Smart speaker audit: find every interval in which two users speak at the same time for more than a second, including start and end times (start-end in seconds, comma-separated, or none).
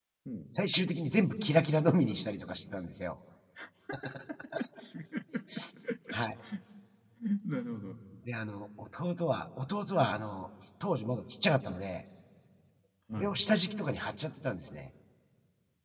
none